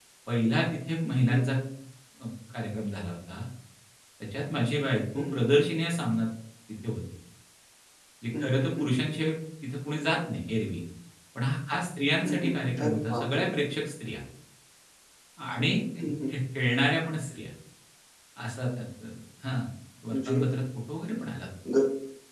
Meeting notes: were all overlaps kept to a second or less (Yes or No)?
No